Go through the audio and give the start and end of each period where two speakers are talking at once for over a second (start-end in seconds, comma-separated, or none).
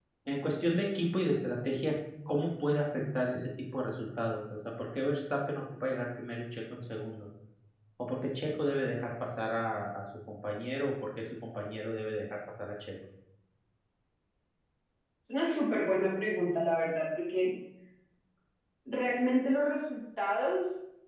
none